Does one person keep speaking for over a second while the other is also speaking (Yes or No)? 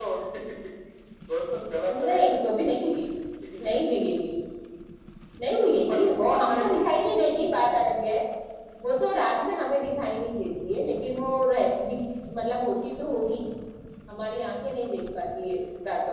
Yes